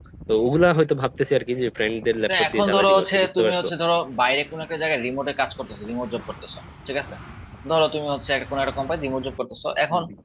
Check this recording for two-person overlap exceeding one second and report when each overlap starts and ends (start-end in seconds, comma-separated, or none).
2.3-3.7